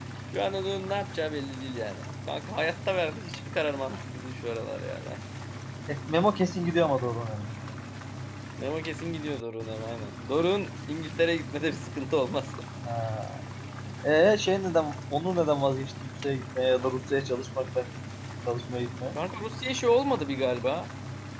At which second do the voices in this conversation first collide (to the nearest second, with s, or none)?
none